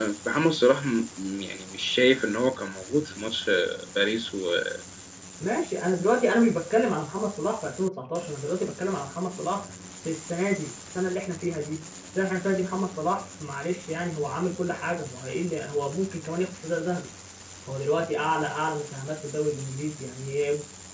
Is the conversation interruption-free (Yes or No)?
Yes